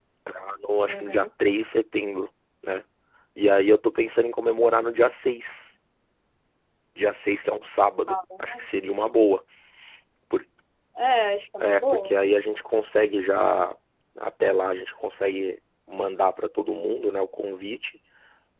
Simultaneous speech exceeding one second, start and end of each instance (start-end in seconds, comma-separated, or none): none